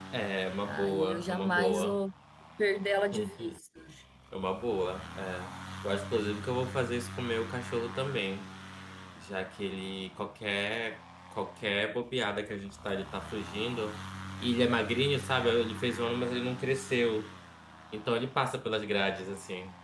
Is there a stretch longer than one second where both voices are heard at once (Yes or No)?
Yes